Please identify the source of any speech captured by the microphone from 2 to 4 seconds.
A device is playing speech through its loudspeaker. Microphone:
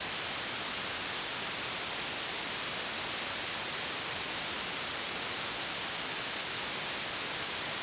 neither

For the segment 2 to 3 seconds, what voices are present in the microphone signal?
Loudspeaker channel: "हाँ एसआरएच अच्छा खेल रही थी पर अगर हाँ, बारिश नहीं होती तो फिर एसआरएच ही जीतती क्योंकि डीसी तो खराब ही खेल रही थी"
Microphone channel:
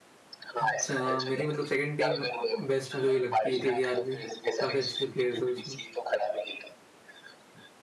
both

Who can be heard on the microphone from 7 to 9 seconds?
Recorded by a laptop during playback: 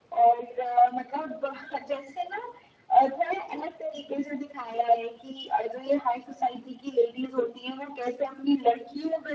echo only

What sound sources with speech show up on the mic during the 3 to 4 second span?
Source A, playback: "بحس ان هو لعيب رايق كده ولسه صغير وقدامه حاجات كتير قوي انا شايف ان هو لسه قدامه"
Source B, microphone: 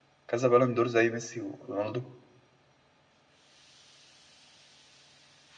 neither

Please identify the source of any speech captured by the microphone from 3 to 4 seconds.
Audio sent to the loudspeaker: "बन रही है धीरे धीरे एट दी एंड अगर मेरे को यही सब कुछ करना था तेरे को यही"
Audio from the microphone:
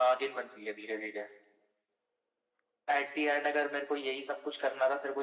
echo only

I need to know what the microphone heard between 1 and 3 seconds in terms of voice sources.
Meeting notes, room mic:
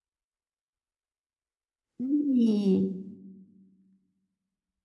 user only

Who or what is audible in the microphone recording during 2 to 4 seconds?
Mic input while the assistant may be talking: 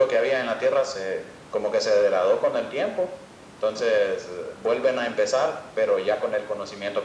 echo only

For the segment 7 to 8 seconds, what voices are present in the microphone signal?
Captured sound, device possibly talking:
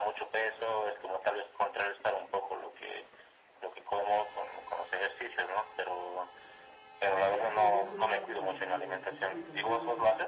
both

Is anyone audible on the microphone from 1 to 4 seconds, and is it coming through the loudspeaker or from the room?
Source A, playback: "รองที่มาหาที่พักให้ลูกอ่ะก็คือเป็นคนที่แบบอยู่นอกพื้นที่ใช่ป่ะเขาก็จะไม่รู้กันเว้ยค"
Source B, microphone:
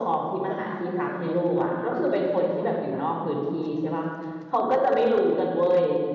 both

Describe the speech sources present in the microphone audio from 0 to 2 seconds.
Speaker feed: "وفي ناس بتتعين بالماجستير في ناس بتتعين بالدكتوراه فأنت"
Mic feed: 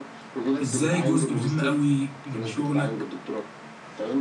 both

